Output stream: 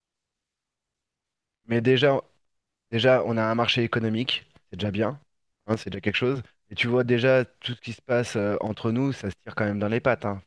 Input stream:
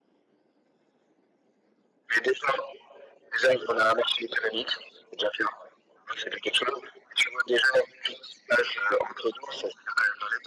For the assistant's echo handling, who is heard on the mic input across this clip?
echo only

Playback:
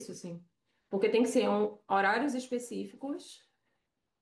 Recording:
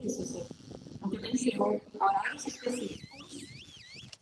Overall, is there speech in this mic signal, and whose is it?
echo only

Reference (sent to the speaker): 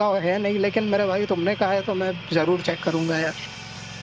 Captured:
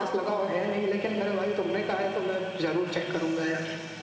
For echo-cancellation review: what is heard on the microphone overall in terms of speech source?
echo only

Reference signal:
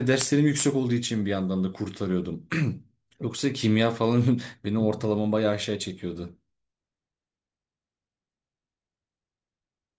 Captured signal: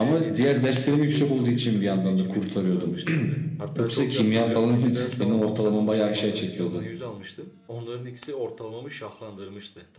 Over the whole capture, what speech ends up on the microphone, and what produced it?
both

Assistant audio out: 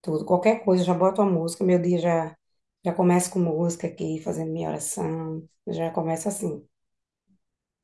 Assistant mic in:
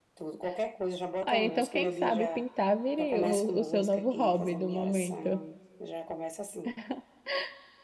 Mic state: both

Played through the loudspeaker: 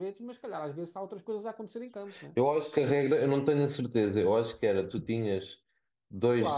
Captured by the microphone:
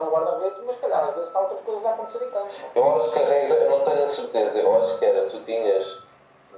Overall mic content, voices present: echo only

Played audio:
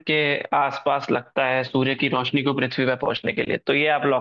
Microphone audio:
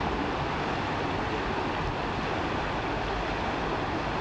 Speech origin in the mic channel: neither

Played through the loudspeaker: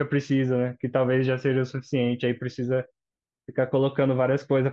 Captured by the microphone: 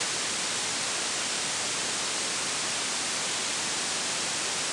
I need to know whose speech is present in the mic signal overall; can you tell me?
neither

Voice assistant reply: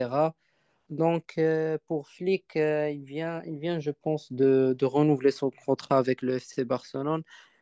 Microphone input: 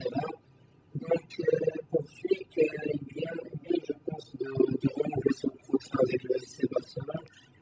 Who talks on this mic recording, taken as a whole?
echo only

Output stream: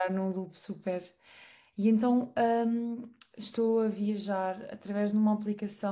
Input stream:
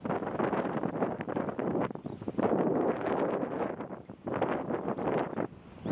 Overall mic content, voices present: neither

